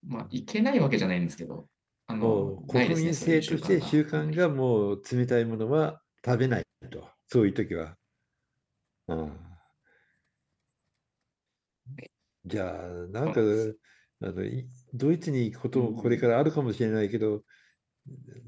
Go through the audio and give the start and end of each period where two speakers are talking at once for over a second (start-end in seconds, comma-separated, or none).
2.2-4.4